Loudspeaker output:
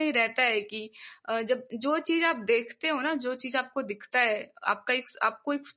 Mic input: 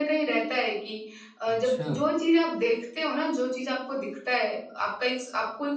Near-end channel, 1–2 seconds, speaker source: both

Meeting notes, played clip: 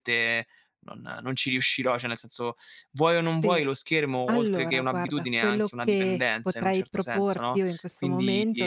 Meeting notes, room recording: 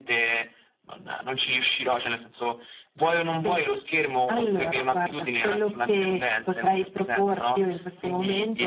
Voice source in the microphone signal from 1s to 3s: echo only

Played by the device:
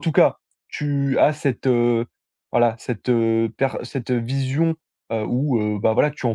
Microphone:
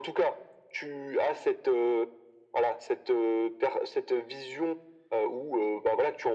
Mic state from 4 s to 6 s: echo only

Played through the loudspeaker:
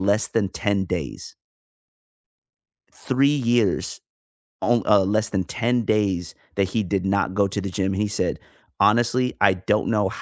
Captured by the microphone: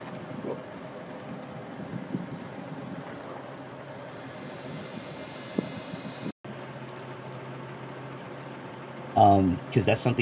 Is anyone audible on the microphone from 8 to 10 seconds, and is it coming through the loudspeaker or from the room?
user only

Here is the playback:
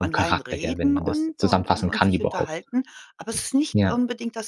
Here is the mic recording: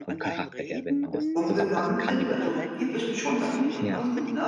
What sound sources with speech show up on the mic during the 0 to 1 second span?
echo only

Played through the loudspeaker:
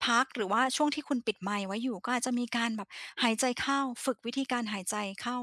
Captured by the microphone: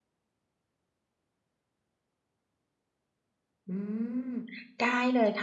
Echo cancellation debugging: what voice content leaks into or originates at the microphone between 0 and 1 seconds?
neither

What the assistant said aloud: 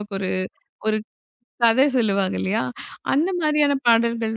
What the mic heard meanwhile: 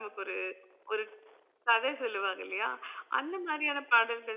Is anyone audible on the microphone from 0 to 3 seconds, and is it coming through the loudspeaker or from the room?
echo only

